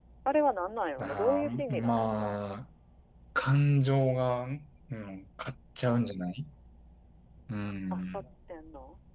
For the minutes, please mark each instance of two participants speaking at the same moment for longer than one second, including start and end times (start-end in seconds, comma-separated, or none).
1.0-2.3